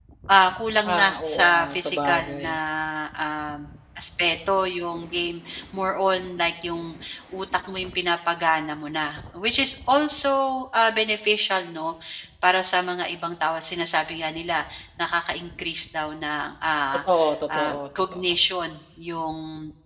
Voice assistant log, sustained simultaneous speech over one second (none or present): present